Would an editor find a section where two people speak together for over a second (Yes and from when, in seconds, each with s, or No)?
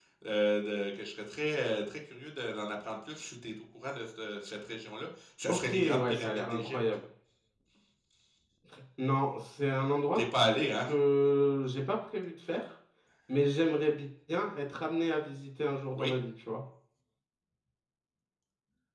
Yes, from 5.5 s